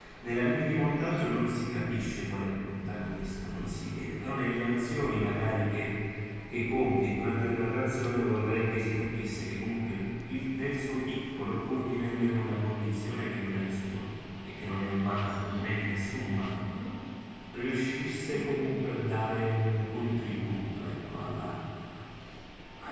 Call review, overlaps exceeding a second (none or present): none